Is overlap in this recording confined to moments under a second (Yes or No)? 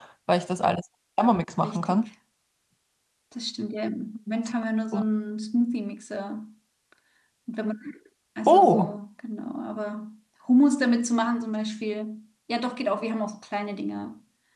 Yes